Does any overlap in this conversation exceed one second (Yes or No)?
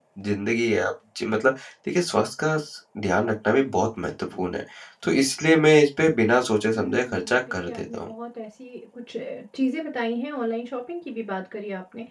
Yes